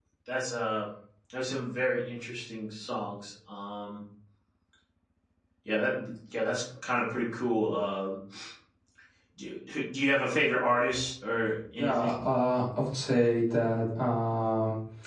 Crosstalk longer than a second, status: none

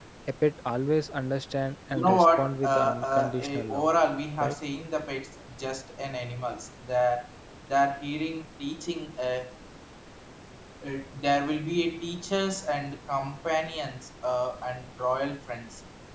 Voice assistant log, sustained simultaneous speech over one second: present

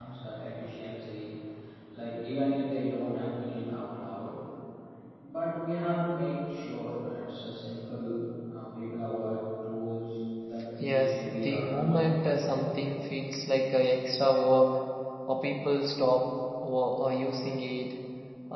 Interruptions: present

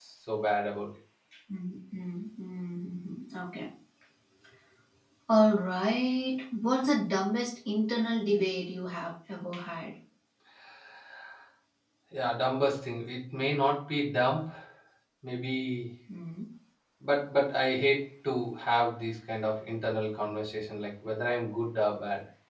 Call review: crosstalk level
none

